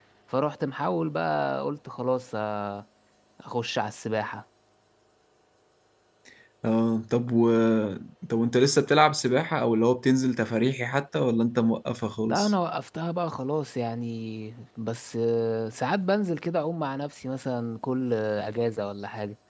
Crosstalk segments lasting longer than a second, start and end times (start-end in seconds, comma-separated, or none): none